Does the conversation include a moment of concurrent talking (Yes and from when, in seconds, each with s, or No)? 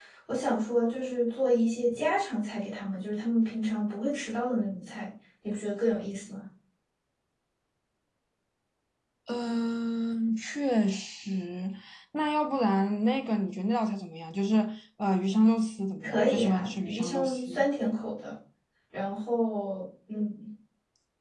Yes, from 16.0 s